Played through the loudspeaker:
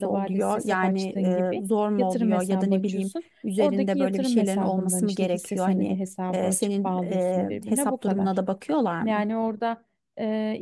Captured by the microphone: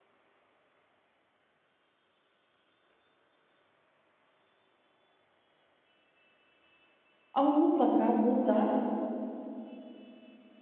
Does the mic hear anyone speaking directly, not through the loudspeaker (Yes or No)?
Yes